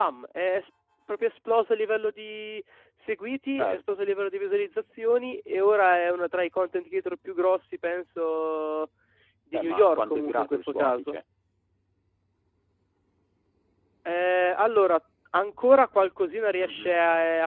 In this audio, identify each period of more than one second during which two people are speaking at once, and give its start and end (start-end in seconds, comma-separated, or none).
9.5-11.2